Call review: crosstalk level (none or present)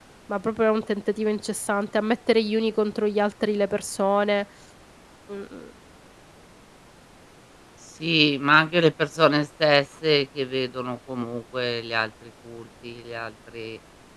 none